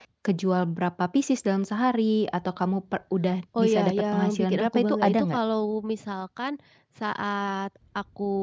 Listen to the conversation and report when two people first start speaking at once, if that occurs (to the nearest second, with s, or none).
4 s